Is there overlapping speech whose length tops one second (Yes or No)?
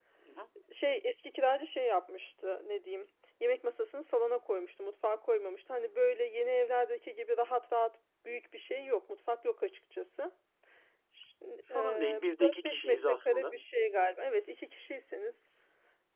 Yes